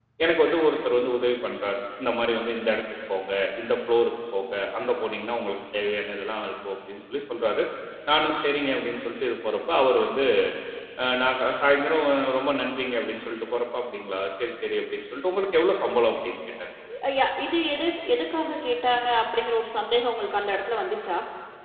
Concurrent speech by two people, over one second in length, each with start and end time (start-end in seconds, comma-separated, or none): none